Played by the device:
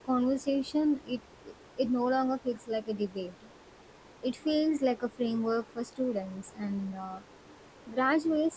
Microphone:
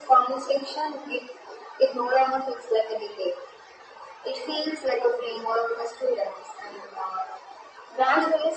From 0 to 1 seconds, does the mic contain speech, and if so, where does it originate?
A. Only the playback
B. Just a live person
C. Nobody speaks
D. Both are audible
A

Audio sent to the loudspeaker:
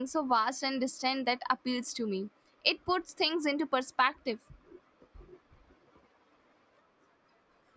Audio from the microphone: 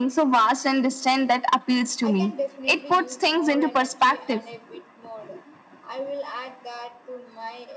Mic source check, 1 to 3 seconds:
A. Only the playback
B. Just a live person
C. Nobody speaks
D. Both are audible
D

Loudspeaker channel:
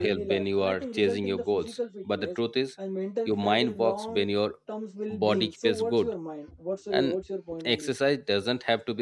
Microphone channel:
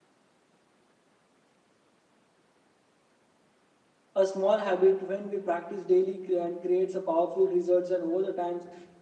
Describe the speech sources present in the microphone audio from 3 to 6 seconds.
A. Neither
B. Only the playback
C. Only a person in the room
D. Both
C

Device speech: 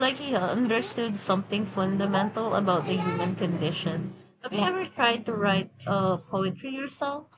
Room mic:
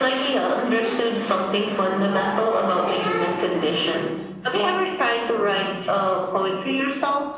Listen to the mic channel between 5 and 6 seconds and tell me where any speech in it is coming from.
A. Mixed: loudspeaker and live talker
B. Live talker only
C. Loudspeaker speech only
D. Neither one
C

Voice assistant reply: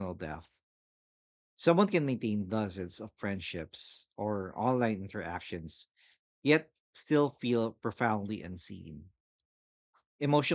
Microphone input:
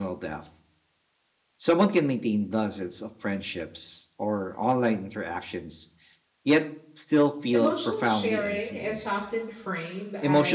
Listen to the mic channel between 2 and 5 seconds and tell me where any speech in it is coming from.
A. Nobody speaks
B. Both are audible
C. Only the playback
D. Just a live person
C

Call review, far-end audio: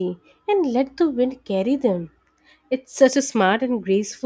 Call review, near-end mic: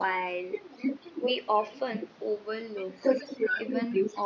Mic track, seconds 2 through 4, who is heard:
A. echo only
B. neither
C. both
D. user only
C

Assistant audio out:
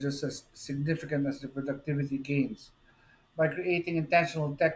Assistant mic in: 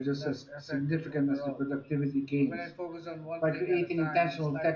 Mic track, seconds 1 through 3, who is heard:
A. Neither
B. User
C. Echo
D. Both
D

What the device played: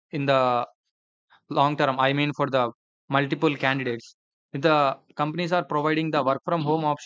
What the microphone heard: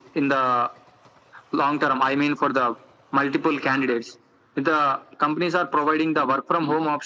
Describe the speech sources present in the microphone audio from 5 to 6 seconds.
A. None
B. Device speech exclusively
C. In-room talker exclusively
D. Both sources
B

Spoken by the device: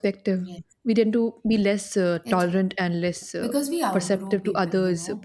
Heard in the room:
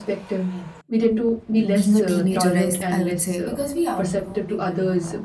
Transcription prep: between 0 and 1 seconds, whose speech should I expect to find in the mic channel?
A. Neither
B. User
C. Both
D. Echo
D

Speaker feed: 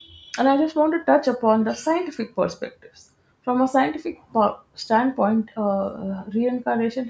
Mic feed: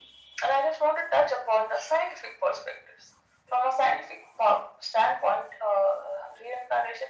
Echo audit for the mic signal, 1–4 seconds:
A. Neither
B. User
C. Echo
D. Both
C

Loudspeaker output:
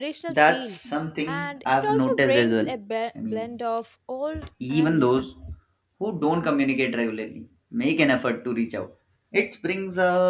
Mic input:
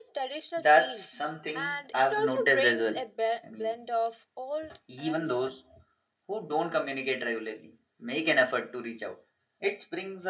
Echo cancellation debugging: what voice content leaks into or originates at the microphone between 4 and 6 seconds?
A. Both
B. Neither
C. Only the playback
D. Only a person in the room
C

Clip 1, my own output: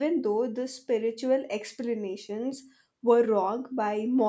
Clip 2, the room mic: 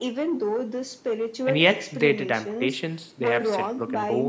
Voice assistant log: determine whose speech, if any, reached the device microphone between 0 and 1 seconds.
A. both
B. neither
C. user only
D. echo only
D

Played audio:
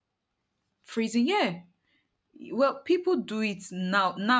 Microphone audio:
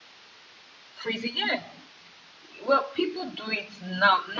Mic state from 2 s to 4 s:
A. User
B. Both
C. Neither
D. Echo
D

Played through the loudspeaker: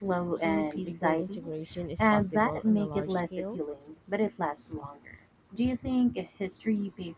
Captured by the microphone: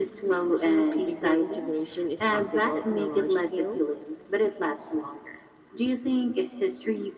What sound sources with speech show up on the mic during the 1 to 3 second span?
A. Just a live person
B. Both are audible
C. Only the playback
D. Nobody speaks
C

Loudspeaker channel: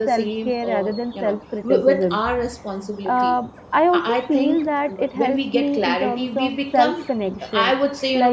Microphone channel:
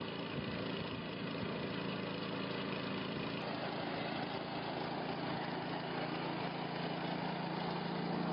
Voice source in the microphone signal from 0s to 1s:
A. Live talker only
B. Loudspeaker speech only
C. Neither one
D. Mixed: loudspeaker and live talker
C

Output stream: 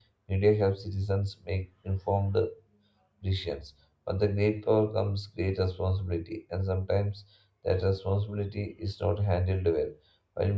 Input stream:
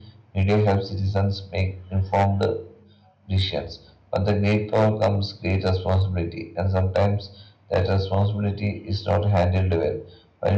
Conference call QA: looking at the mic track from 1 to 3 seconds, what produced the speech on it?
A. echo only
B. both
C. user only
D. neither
A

